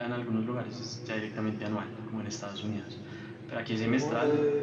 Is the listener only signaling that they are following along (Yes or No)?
No